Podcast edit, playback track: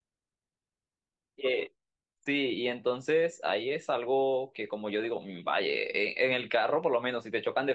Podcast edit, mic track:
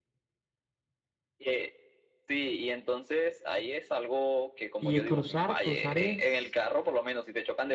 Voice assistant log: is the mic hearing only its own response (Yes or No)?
No